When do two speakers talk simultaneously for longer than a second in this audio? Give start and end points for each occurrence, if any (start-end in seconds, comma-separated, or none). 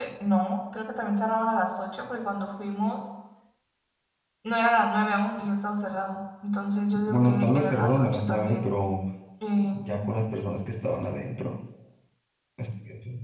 7.0-8.7